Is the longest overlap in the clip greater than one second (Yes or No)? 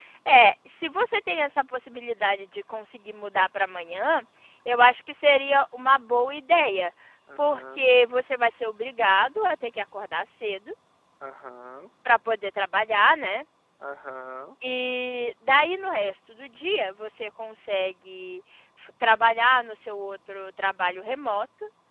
No